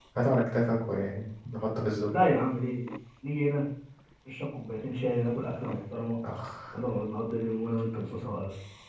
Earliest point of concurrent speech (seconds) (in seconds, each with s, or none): none